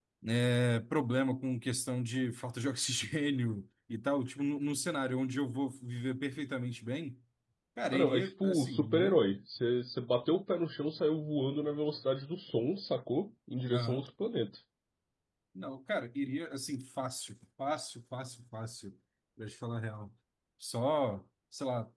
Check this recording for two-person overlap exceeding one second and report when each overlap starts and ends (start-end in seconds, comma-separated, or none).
7.9-9.1